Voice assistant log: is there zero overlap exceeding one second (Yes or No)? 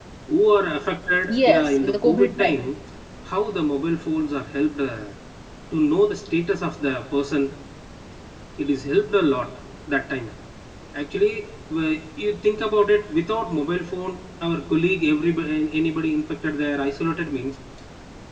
No